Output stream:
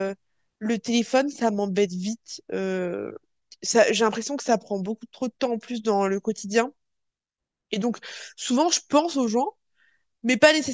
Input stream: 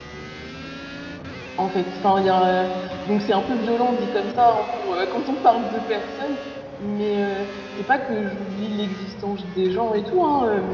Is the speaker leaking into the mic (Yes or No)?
No